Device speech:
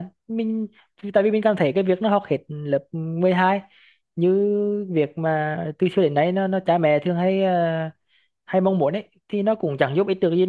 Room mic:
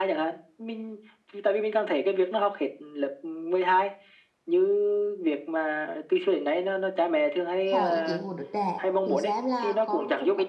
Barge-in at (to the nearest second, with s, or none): 8 s